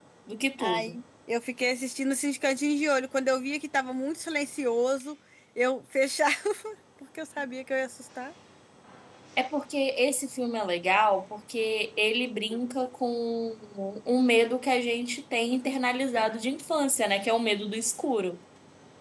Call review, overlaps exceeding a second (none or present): none